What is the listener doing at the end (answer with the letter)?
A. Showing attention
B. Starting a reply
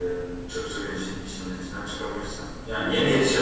A